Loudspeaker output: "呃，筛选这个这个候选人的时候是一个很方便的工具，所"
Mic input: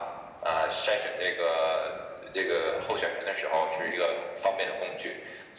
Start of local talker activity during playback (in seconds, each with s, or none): none